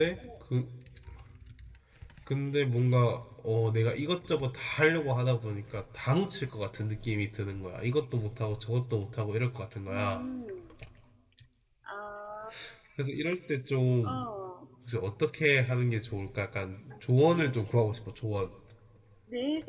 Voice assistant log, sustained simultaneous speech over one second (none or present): none